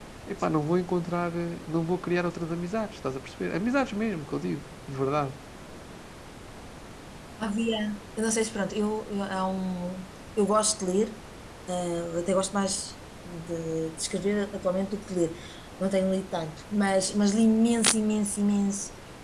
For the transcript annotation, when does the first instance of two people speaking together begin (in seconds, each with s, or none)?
none